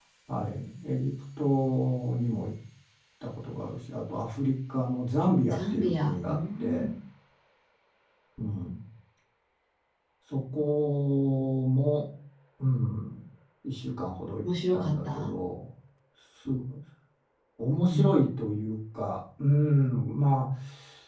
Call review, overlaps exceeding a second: present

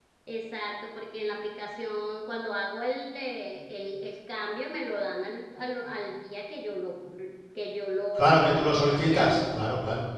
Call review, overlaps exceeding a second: present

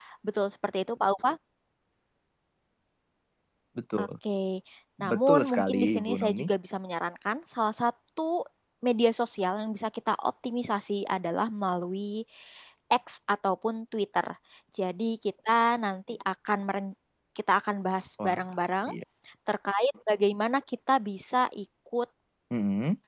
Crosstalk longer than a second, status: present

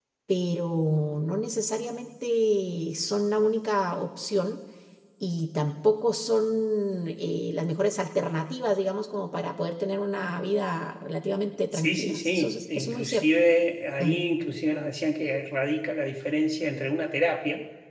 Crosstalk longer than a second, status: present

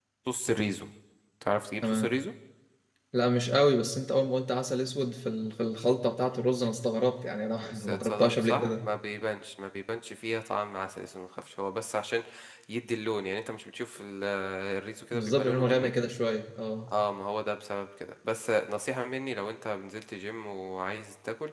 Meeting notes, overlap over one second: present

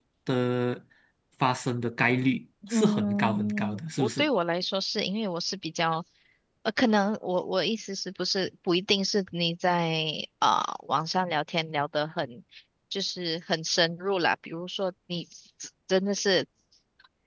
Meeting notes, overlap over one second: present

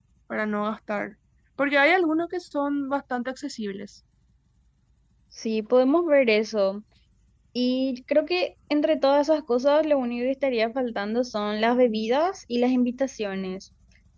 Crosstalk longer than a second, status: none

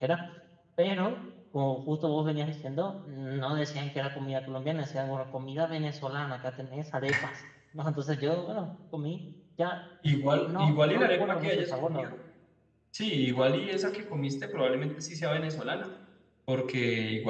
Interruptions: present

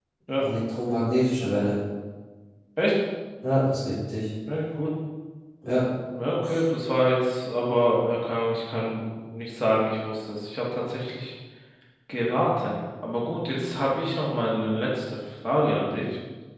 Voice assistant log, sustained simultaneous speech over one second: none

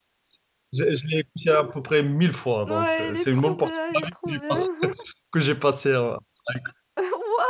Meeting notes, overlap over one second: present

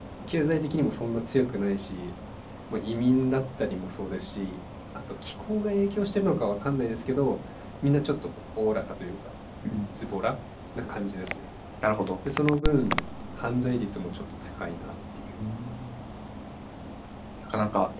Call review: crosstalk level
none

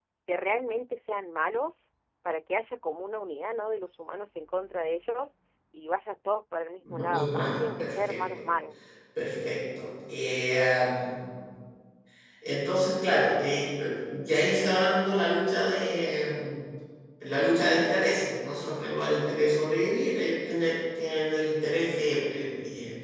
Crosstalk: present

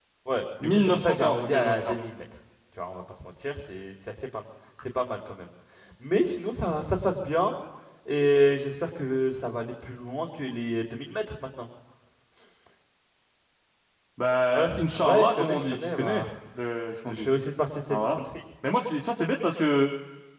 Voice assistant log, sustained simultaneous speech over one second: present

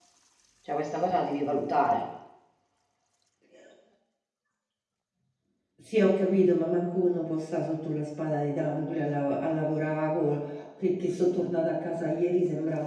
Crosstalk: none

